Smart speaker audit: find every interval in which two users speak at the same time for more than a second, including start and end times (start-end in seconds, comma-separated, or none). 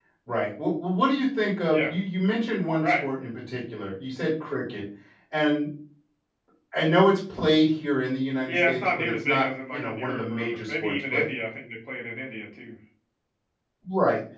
8.5-11.2